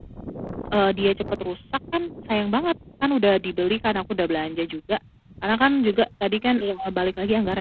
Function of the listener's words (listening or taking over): listening